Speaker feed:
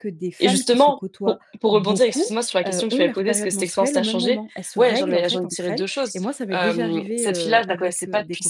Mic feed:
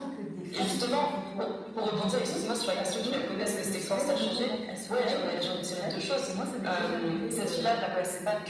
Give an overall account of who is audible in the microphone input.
echo only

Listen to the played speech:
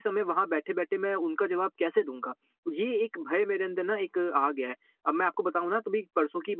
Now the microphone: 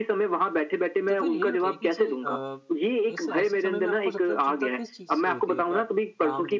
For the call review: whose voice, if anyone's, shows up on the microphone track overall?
both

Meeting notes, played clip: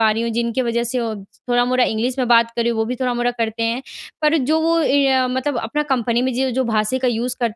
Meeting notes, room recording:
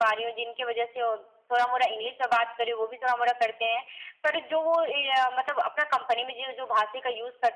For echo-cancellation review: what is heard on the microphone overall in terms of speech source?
echo only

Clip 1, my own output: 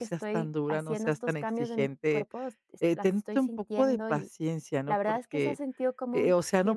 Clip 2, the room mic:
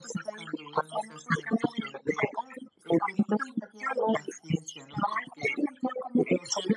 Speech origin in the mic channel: echo only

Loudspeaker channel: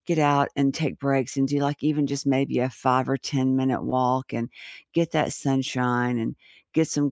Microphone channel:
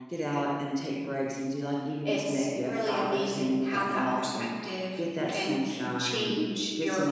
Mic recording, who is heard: both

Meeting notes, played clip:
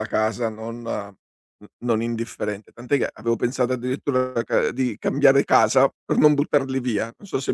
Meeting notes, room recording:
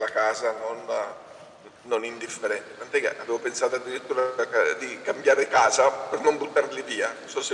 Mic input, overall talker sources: echo only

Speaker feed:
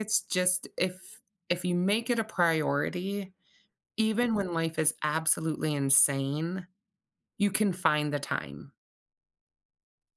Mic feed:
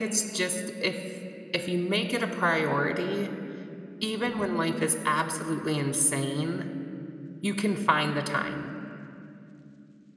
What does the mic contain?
echo only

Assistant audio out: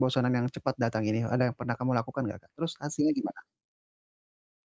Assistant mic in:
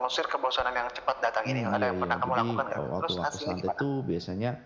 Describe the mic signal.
both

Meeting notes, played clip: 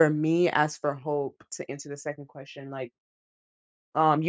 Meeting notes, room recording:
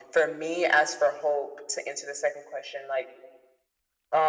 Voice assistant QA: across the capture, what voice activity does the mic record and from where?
echo only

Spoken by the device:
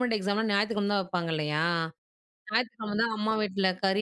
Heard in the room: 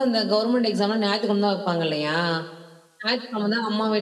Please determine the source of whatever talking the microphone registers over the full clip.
echo only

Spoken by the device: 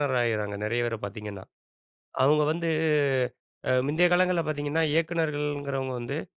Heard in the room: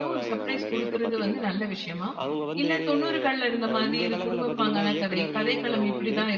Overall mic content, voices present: both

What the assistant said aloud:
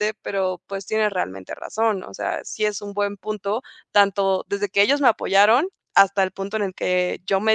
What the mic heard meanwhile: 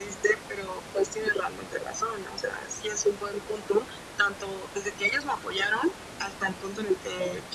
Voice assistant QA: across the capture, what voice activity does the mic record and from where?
echo only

